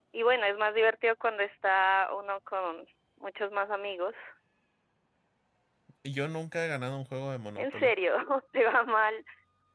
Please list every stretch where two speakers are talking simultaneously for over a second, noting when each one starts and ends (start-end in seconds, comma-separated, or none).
none